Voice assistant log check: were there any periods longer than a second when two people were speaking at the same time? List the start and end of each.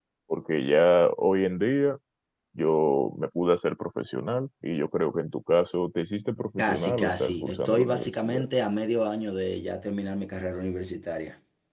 6.6-8.4

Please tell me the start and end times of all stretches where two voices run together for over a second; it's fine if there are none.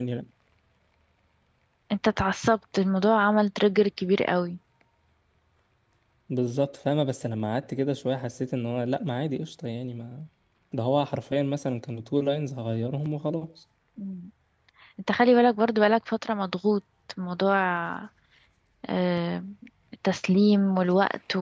none

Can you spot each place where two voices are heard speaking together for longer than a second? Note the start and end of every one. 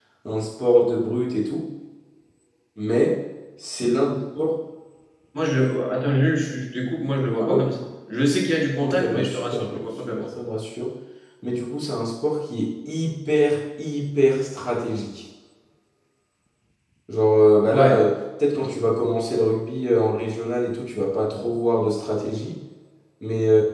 8.8-10.3

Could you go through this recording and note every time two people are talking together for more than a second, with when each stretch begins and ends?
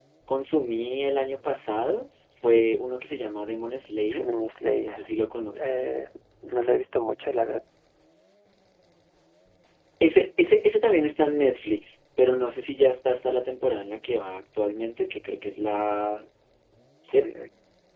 none

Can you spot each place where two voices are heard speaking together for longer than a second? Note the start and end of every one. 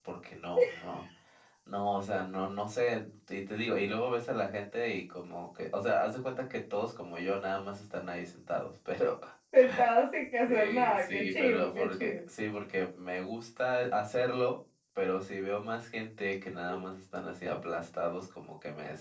10.4-12.2

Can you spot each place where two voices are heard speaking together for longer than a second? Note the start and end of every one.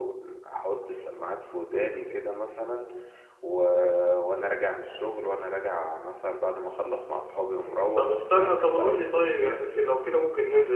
8.0-9.6

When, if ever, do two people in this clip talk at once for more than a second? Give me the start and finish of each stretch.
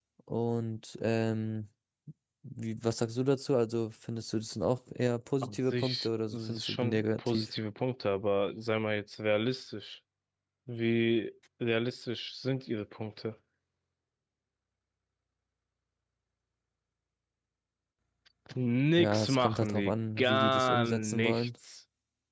5.4-7.4, 19.0-21.5

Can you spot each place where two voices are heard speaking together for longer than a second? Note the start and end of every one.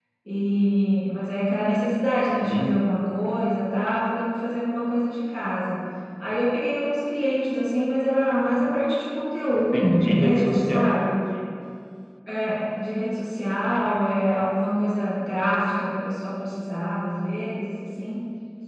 9.7-10.9

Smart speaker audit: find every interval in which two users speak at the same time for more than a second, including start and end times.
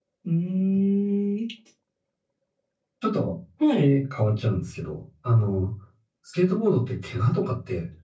none

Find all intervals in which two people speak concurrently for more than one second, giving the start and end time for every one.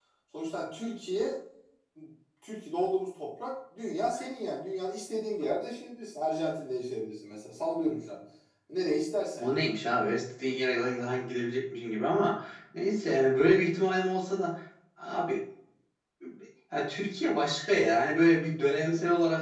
none

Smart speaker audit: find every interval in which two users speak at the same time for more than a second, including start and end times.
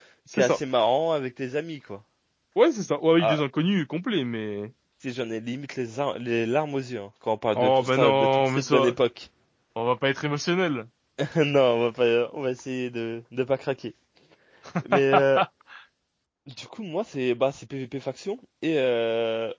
7.6-9.0

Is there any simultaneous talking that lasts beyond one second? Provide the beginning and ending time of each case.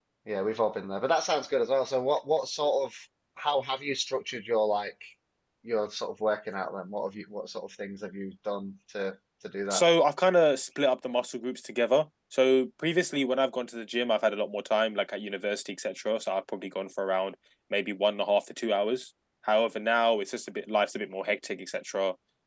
none

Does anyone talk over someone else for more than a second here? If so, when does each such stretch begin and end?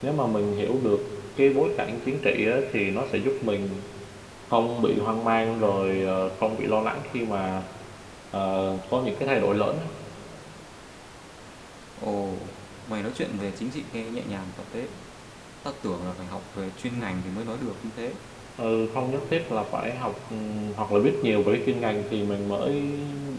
none

